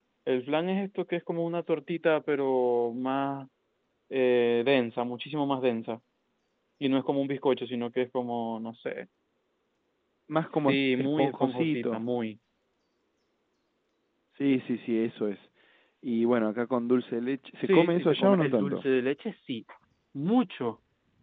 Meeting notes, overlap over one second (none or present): present